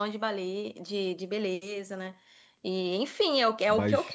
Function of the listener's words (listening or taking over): listening